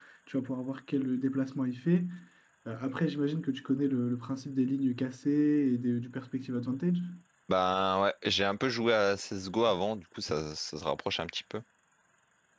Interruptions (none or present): none